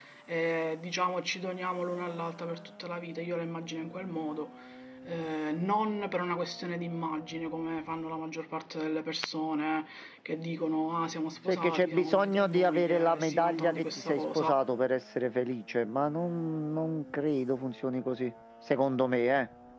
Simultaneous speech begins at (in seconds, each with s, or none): 11.5 s